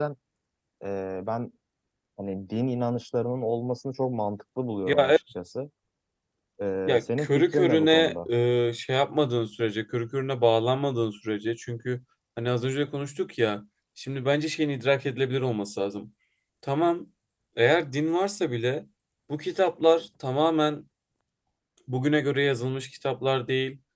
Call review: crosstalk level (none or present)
present